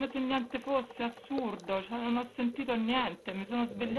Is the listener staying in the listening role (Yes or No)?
Yes